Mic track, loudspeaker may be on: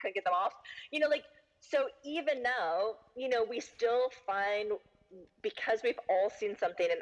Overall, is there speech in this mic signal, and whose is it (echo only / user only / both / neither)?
echo only